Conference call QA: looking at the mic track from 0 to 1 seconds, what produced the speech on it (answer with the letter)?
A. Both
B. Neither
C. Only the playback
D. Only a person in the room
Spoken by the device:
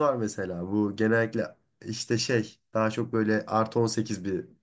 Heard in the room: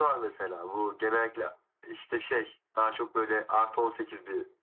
C